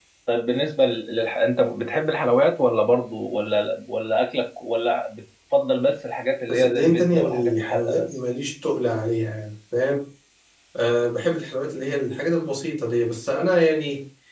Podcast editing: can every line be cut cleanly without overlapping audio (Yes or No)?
No